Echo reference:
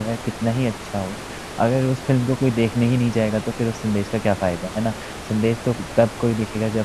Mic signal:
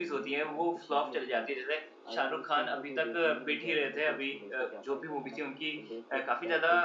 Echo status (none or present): present